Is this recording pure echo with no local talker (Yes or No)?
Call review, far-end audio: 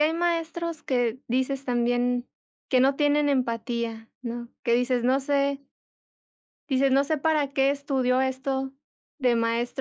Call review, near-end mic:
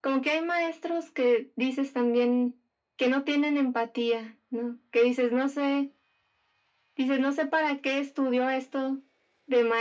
Yes